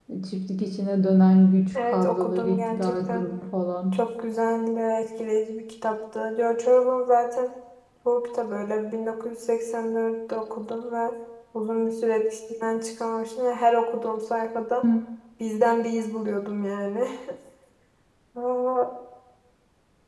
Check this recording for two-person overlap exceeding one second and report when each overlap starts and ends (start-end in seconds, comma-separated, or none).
1.8-3.2